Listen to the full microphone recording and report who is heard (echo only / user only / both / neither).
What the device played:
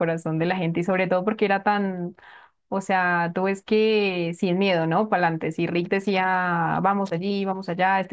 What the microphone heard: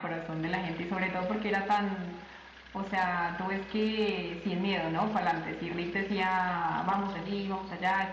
echo only